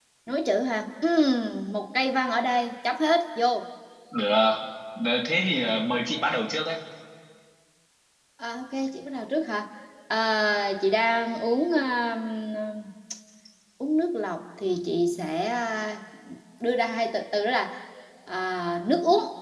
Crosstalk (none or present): none